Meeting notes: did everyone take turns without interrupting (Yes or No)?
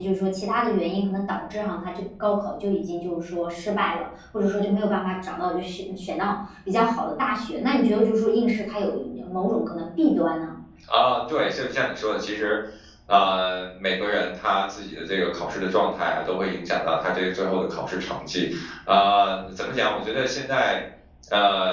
Yes